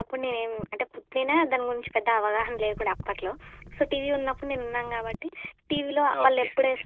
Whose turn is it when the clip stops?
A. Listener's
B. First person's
B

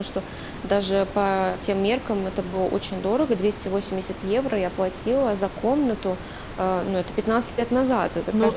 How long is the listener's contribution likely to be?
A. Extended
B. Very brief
A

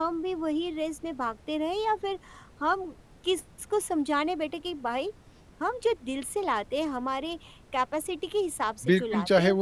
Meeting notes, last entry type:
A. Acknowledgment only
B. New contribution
B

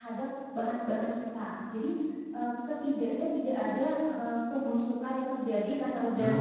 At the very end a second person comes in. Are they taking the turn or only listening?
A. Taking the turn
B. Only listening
B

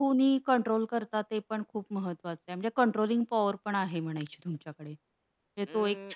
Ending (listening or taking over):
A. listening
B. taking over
B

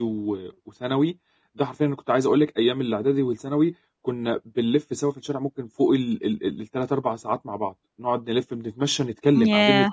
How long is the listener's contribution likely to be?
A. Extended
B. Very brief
B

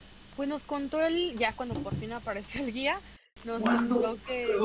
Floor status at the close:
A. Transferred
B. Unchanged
A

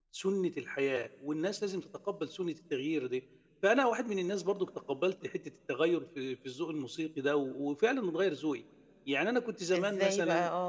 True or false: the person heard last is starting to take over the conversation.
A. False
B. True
B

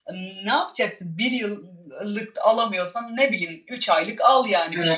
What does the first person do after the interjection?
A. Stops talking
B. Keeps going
A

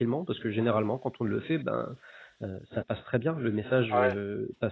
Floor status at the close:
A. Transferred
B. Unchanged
B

